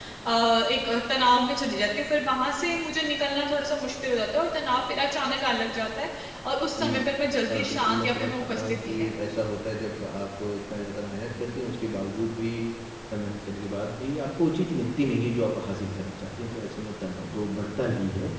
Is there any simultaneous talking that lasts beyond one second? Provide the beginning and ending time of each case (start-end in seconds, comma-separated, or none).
7.5-9.1